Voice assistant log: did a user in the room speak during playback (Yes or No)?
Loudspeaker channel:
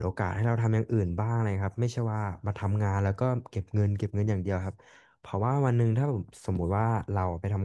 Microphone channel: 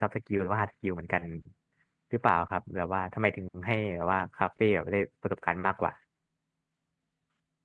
Yes